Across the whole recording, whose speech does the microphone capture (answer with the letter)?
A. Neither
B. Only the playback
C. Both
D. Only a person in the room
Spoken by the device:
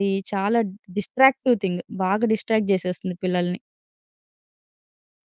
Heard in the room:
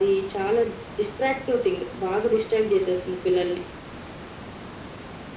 B